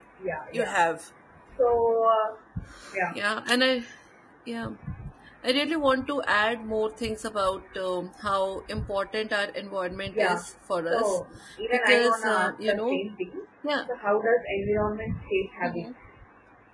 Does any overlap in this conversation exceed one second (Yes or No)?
Yes